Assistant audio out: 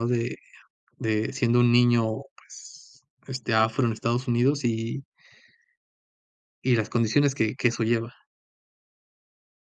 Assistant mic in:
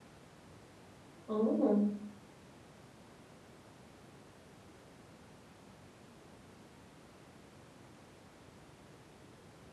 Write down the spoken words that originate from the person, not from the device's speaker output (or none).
Oh.